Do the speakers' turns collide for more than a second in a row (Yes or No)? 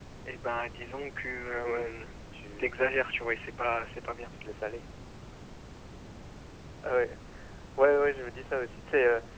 No